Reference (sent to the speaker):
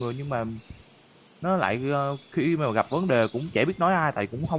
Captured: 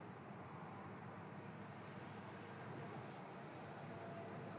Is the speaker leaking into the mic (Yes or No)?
No